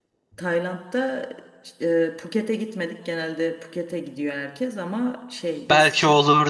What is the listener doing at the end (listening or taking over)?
taking over